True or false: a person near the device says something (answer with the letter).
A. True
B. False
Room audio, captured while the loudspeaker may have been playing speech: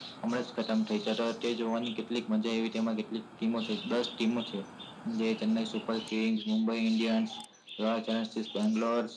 B